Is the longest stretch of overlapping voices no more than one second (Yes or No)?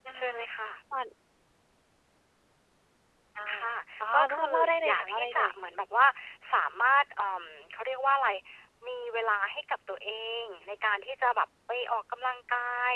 No